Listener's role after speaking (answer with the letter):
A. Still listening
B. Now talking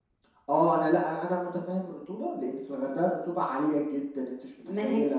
B